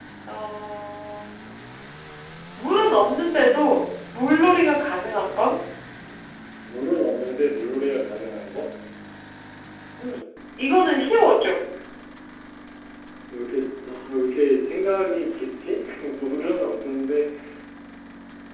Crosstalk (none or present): none